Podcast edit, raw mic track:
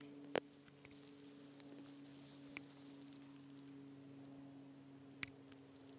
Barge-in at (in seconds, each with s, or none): none